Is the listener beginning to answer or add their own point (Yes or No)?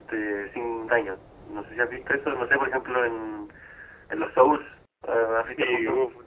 Yes